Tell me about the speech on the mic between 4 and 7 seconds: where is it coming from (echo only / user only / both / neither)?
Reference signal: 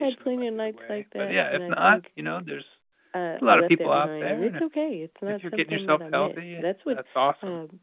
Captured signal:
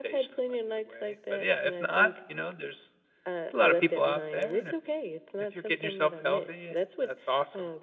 echo only